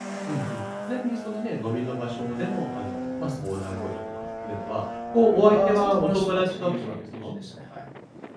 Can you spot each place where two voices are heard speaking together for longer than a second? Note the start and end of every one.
5.5-7.3

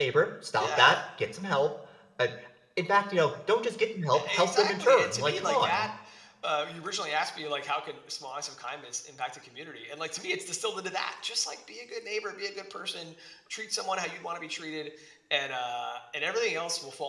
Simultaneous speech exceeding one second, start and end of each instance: 4.3-5.9

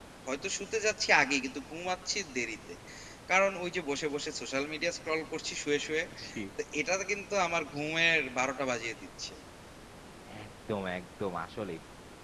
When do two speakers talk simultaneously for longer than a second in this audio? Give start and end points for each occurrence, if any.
none

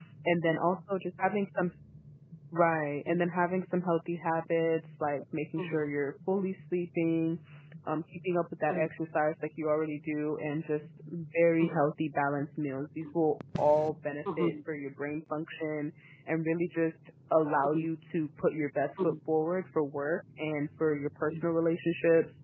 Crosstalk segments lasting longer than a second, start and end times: none

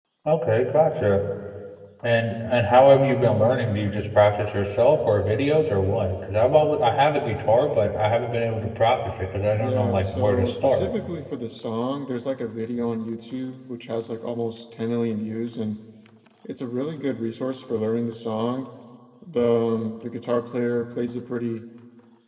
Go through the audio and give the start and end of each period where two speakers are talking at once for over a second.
9.5-10.9

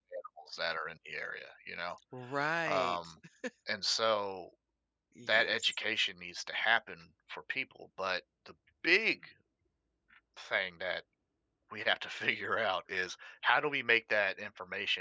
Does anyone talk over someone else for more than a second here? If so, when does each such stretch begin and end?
none

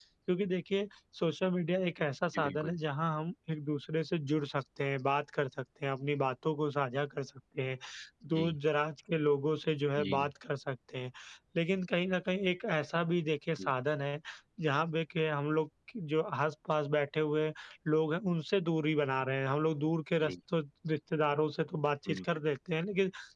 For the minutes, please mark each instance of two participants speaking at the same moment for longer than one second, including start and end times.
none

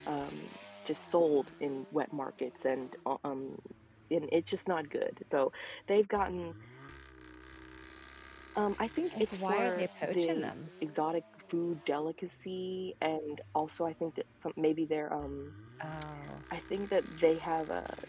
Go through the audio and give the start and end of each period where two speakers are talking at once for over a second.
9.1-10.5

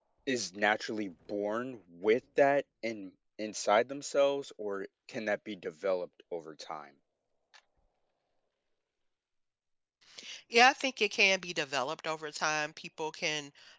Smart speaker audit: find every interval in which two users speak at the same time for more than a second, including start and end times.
none

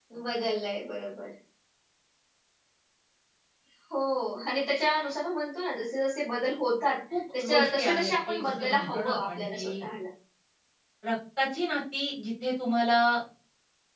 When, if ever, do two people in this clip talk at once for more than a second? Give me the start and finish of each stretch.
7.4-9.9

